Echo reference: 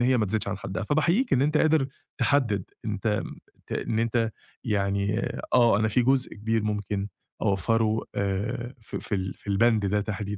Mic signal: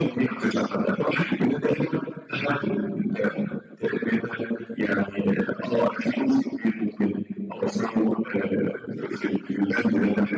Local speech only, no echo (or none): none